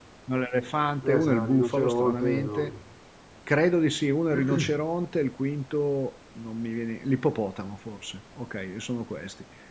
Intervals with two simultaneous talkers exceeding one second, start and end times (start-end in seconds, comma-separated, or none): 1.0-2.7